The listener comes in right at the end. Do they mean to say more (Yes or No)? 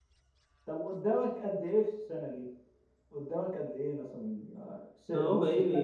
Yes